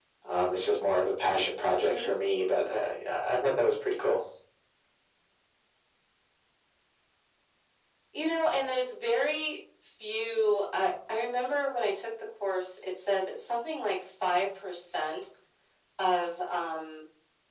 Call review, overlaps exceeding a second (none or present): none